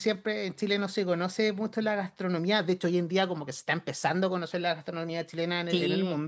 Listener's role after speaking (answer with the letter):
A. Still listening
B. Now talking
B